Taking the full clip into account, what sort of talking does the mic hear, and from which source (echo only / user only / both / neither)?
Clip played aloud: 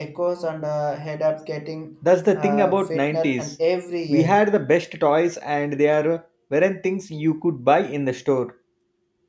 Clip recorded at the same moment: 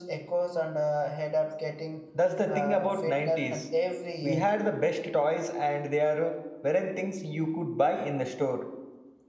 echo only